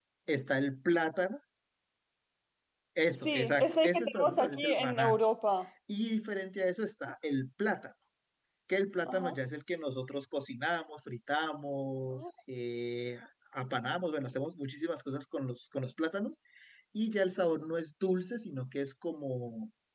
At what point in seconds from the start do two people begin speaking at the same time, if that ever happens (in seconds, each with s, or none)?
3.1 s